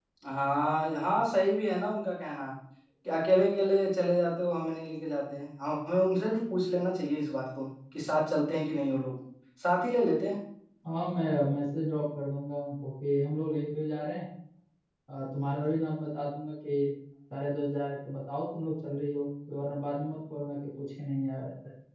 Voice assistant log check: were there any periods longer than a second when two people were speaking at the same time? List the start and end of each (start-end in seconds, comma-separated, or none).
none